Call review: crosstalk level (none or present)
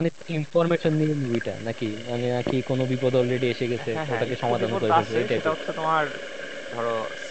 present